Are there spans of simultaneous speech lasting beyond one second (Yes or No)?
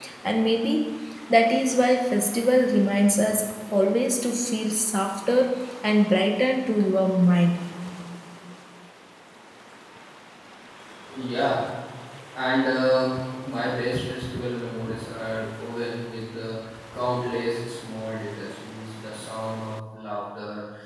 No